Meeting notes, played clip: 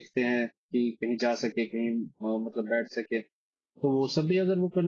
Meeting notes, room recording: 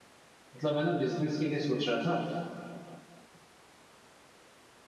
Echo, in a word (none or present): none